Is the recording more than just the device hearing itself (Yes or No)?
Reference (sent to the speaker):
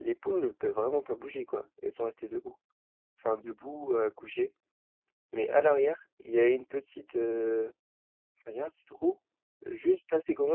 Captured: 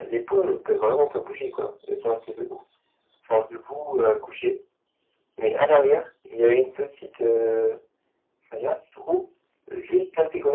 No